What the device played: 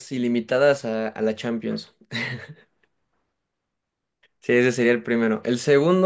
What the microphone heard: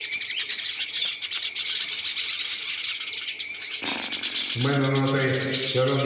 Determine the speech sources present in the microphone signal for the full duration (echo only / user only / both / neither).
user only